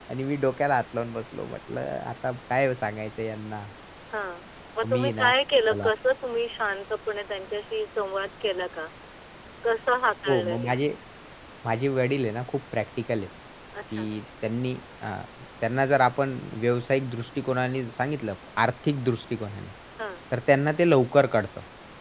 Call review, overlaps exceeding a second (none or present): none